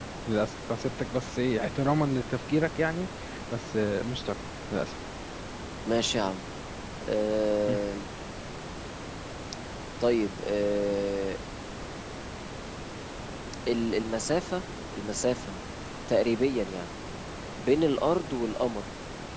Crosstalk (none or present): none